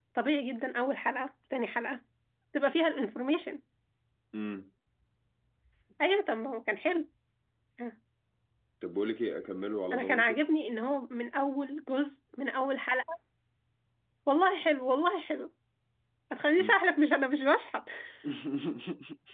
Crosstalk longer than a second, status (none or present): none